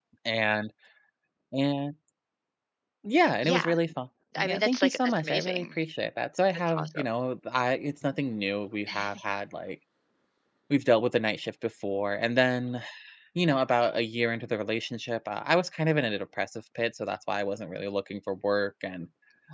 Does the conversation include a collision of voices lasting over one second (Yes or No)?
Yes